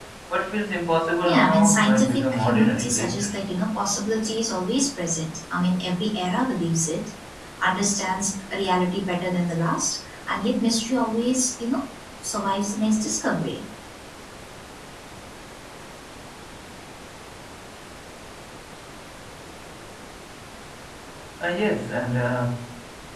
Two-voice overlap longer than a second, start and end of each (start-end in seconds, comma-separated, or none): 1.2-3.3